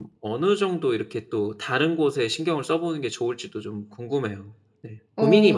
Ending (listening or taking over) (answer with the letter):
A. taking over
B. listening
A